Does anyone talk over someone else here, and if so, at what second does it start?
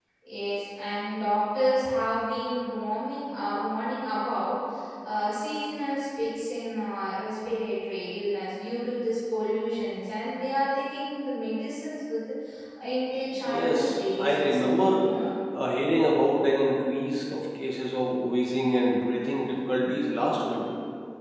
13.5 s

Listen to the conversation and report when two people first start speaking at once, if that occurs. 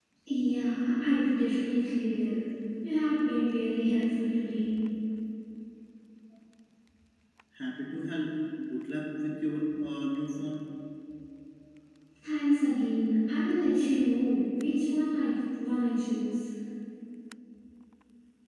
none

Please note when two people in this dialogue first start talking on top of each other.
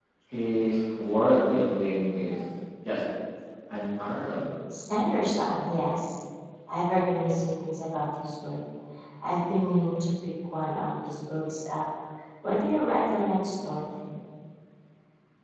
none

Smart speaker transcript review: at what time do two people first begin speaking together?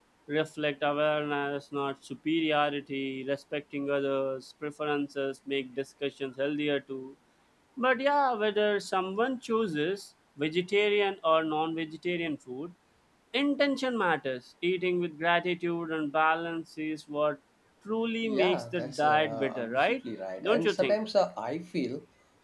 18.2 s

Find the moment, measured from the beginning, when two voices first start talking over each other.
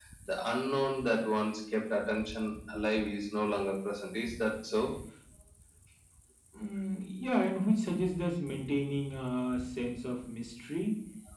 none

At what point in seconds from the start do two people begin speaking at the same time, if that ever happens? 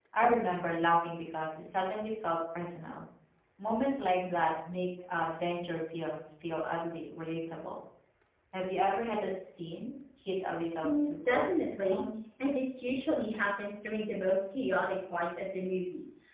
10.8 s

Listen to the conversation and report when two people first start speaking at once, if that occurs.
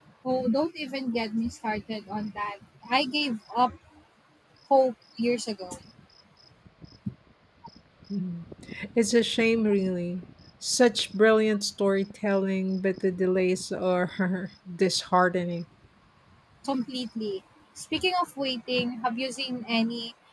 none

